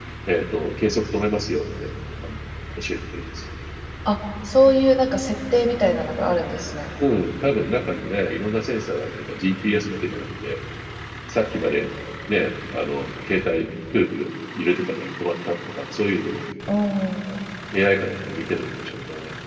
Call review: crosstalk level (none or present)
none